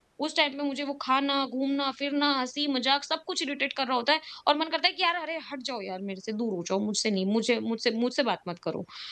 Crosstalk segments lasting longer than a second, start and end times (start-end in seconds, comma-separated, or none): none